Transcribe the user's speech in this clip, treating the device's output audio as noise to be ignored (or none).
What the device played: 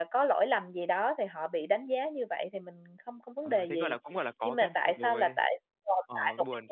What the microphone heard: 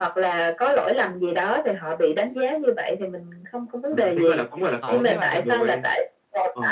ờ, nhưng mà